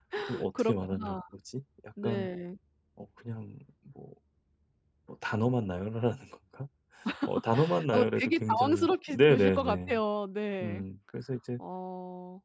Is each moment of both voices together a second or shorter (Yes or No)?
No